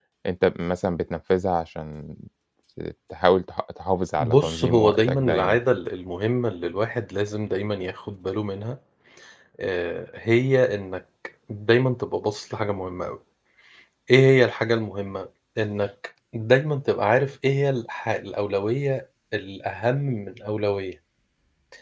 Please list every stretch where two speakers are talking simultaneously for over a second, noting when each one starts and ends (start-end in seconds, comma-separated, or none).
4.2-5.6